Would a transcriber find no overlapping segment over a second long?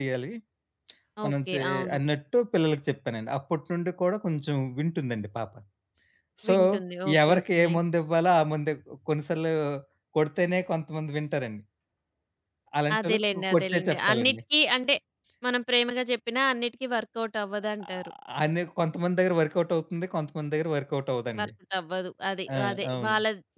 No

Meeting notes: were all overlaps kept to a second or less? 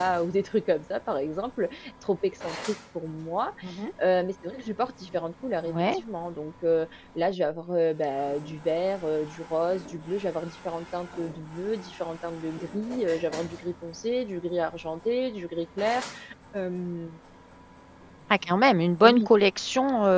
Yes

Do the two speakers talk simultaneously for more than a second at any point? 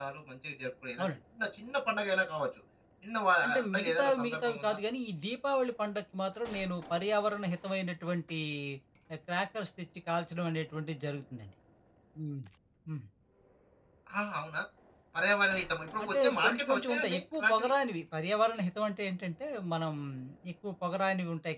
Yes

